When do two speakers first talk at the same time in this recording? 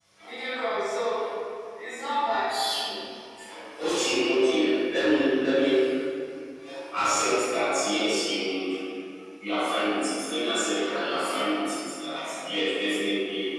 none

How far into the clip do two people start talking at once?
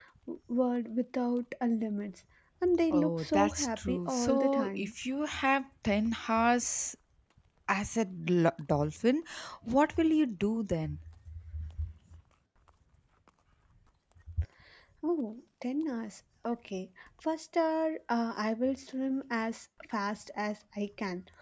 3 s

